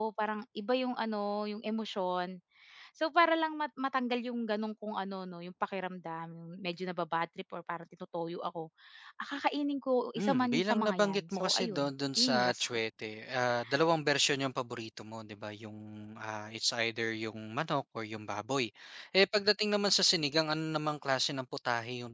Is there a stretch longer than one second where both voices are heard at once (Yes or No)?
Yes